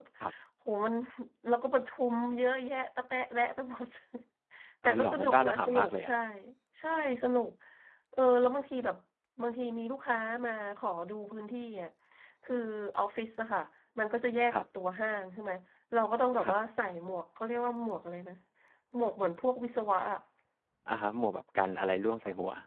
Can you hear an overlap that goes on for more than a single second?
Yes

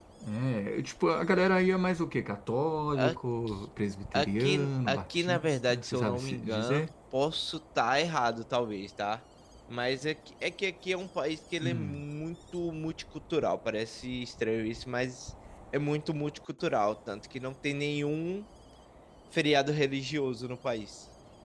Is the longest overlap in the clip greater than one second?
Yes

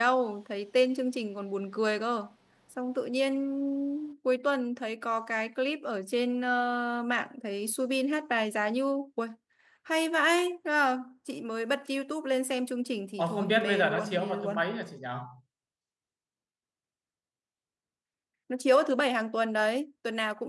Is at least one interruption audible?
Yes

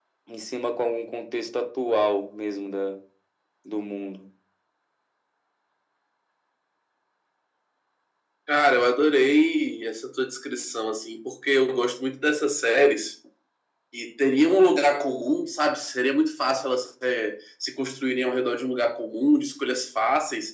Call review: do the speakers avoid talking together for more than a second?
Yes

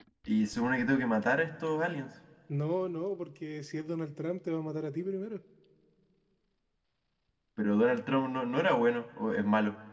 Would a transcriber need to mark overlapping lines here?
No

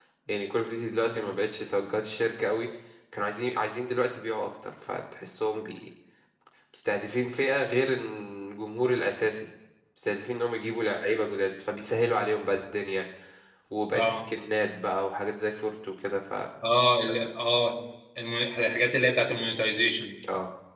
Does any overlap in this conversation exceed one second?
No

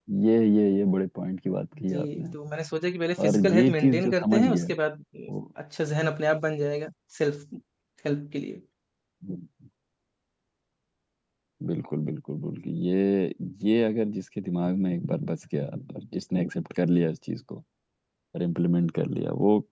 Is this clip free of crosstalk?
No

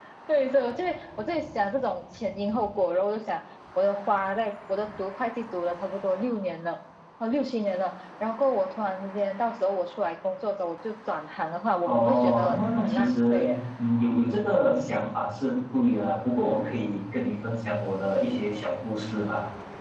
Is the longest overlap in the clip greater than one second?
Yes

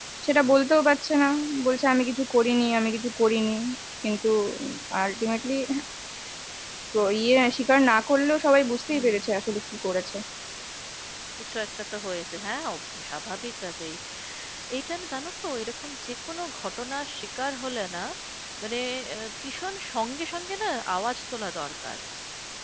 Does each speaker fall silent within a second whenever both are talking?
Yes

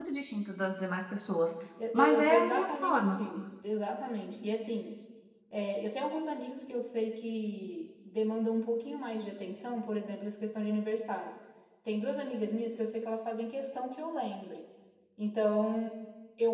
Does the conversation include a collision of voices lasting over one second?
Yes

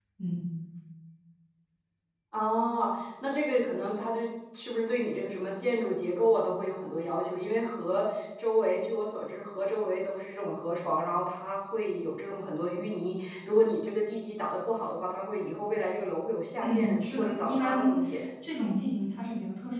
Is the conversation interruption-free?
No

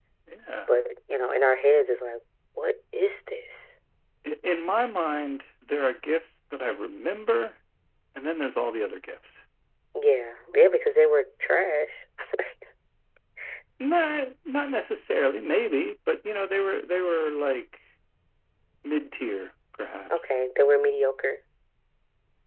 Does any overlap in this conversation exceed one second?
No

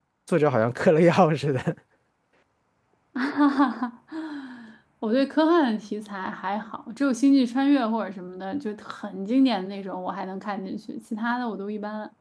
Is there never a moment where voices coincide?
Yes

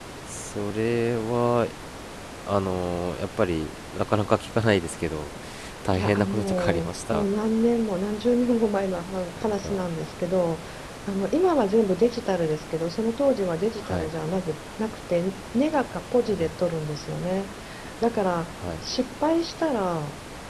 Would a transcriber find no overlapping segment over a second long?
No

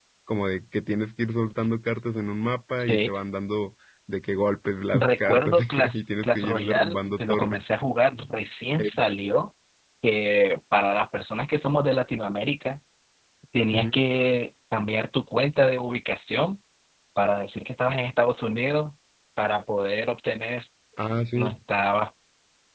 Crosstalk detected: Yes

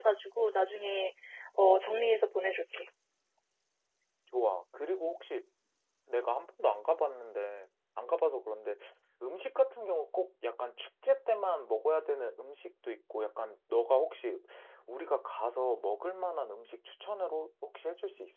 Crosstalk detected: No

